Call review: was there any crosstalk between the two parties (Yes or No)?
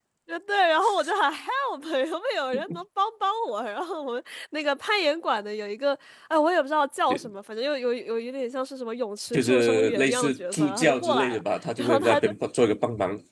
Yes